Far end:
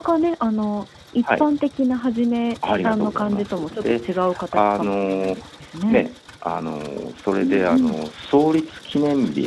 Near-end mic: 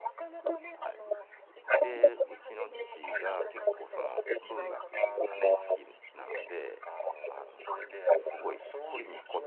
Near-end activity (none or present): present